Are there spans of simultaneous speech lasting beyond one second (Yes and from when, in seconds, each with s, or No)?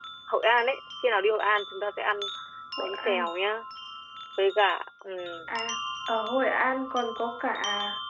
No